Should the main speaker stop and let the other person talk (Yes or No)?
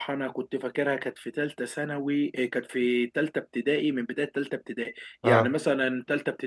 No